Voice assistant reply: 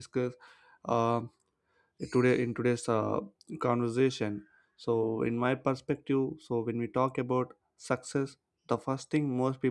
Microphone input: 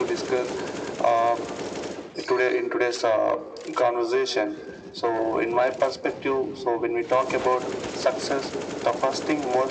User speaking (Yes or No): No